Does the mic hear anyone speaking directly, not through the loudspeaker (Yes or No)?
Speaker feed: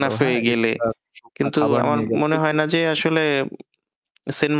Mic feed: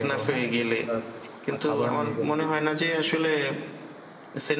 No